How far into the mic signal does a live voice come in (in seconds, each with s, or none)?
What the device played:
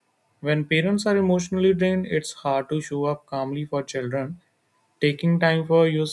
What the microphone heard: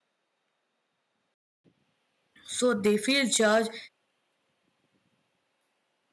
2.4 s